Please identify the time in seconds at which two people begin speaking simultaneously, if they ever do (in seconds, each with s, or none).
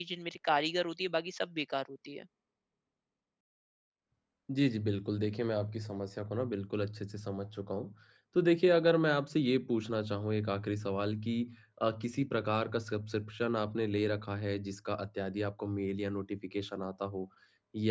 none